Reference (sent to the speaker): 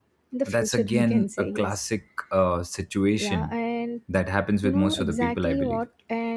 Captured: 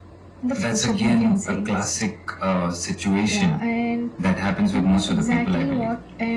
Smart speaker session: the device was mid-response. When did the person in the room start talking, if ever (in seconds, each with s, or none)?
none